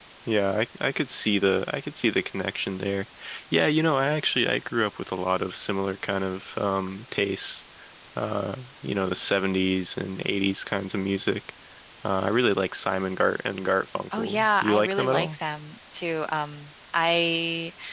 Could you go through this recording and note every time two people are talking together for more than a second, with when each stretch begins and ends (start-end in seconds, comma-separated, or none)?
14.1-15.4